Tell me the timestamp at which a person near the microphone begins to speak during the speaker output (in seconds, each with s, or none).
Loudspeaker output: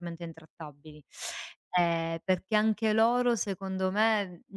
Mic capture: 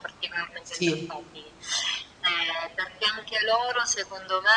0.6 s